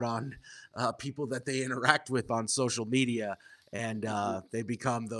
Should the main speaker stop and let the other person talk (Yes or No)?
No